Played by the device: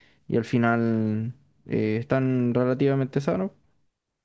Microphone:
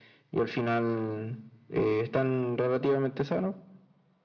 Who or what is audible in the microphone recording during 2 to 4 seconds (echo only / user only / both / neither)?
echo only